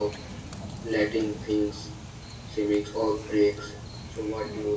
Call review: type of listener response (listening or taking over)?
taking over